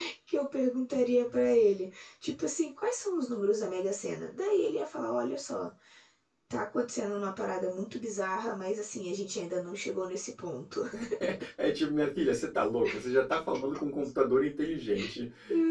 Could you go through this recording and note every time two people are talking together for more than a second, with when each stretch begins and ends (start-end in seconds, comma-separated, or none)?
none